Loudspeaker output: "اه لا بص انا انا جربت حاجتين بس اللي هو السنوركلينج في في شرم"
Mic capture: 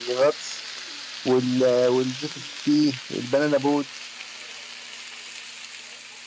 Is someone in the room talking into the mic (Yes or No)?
Yes